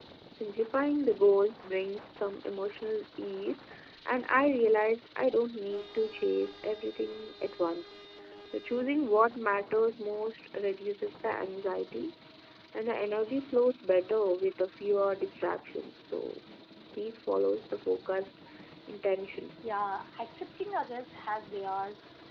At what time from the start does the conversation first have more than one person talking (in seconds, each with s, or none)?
none